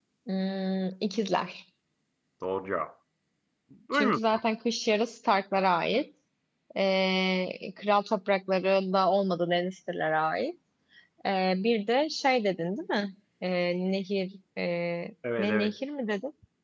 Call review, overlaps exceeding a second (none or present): none